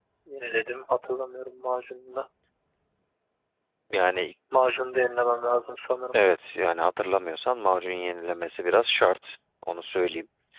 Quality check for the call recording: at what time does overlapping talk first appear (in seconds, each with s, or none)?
none